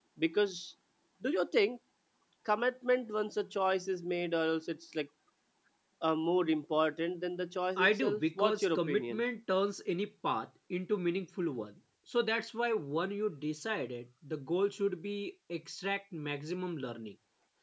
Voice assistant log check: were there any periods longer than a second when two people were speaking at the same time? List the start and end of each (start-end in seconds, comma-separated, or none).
7.8-9.2